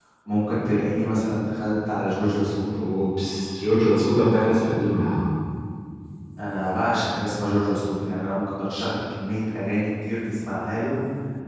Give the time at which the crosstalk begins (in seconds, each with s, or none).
none